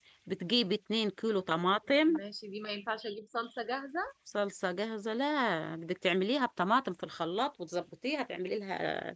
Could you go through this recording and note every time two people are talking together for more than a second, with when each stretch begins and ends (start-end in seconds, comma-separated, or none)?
none